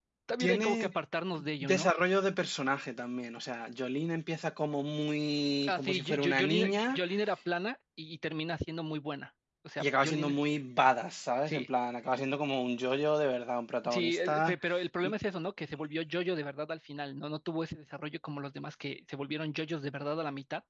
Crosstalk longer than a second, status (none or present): present